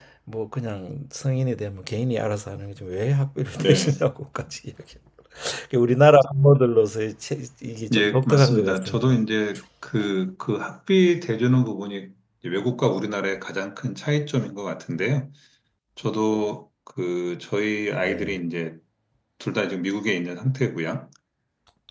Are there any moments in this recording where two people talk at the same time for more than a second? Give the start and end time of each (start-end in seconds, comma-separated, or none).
7.9-9.2